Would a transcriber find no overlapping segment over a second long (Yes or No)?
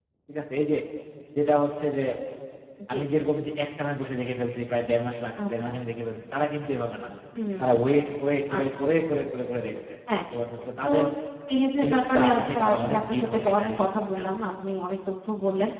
No